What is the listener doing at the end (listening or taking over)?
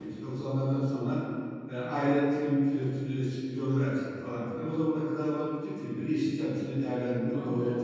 taking over